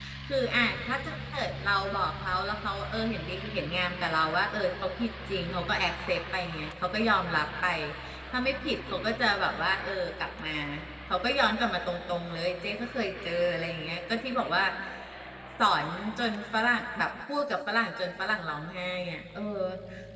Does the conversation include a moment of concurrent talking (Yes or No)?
No